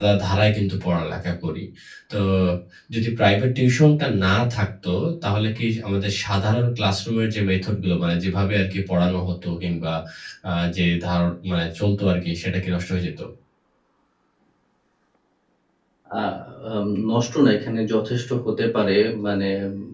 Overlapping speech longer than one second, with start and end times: none

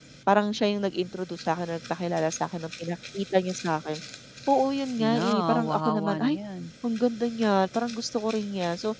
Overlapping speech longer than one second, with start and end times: 5.0-6.4

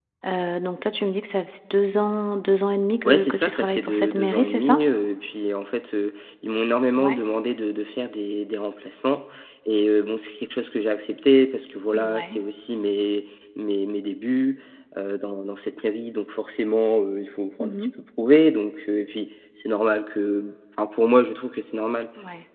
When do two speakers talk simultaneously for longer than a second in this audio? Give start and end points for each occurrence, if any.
3.0-4.8

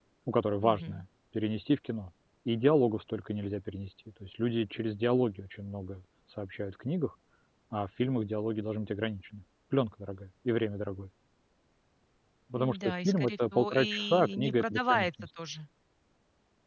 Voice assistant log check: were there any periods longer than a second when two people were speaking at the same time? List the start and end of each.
12.6-15.1

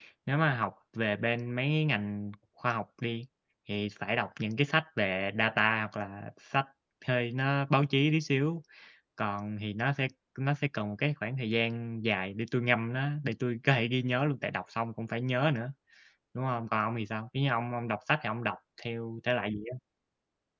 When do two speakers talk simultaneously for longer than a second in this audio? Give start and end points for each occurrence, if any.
none

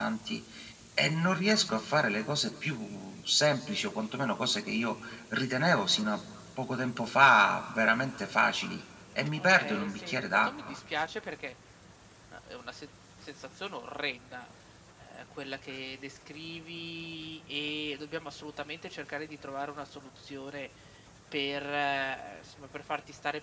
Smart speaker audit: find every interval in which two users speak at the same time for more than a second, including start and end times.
9.3-10.8

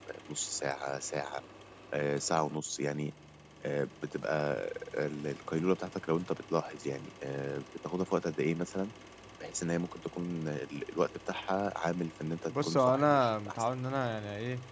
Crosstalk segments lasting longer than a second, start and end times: 12.5-13.7

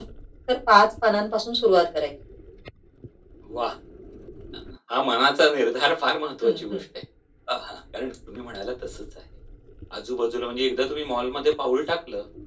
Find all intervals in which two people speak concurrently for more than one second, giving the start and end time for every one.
none

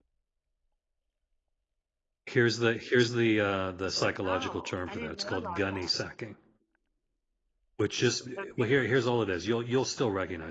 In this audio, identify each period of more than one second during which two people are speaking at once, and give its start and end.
4.2-5.9

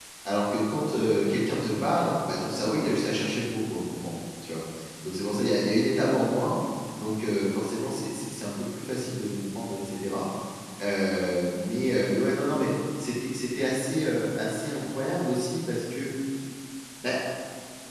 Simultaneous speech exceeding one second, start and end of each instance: none

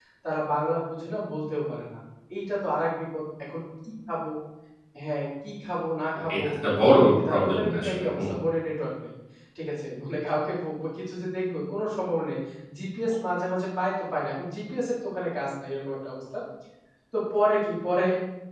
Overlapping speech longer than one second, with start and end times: 6.9-8.2

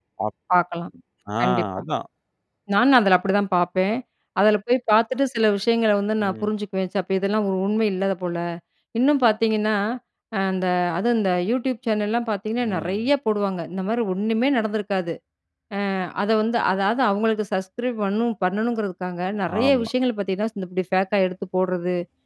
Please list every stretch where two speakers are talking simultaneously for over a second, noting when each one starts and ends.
none

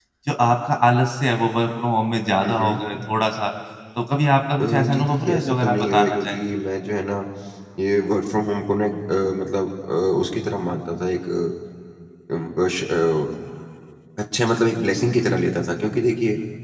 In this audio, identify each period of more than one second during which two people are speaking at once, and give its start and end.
4.6-6.4

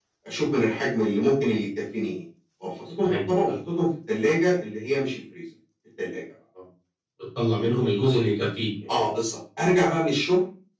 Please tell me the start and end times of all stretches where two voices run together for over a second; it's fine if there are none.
none

